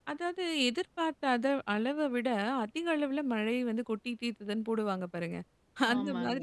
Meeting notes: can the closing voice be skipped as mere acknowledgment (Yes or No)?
Yes